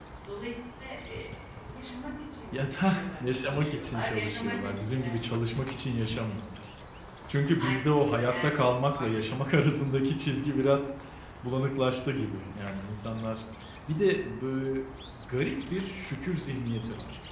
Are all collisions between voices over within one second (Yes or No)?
No